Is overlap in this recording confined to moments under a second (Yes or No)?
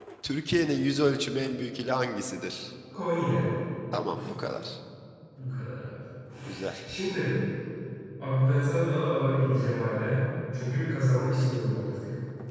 Yes